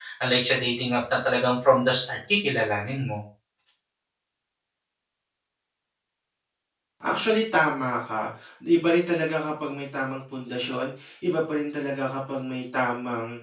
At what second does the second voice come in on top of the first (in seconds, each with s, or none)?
none